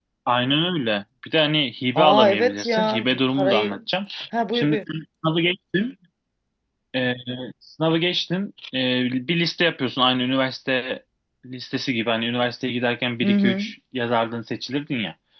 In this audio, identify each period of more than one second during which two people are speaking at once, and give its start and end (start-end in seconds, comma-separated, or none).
2.0-3.8